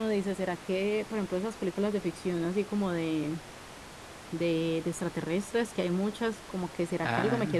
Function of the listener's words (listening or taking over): listening